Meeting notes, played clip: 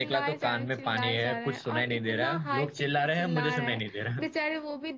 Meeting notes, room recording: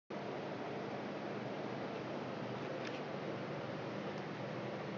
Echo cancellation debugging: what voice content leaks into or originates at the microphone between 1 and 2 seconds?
neither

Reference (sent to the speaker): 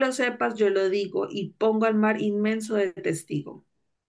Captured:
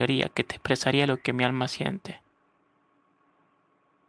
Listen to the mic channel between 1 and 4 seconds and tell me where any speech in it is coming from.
user only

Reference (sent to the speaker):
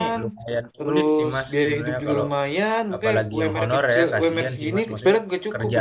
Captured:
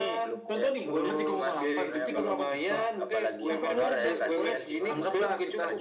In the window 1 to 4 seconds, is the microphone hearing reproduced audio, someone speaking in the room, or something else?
both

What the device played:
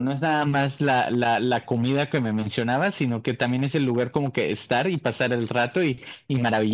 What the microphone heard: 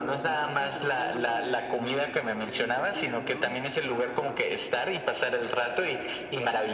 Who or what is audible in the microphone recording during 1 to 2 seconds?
both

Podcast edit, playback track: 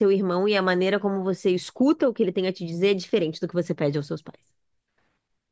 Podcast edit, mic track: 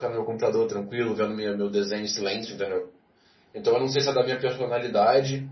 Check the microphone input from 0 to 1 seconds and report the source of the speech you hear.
user only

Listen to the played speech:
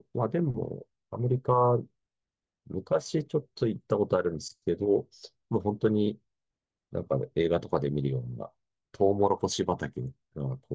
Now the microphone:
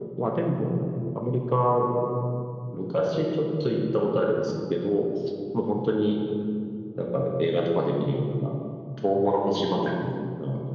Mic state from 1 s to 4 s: echo only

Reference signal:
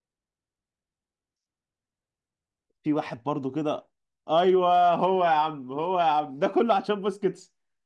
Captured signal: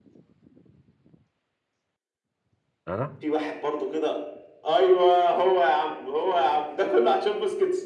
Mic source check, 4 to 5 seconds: echo only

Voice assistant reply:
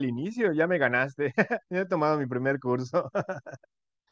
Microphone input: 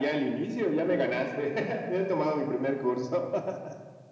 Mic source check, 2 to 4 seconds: echo only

